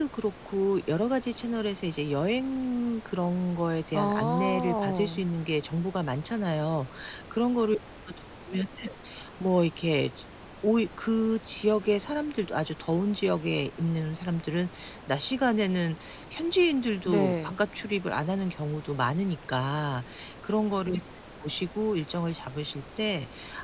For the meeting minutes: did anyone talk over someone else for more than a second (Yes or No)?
Yes